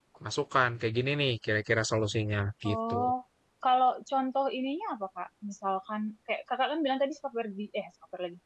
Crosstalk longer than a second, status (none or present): none